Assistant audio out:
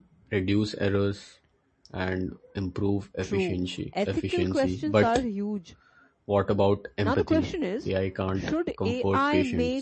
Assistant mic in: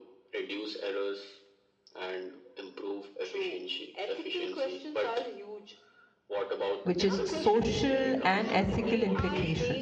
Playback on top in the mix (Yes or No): No